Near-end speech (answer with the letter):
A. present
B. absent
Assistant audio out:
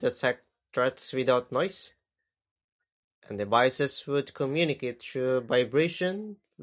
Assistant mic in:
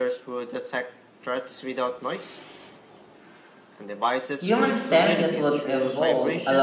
A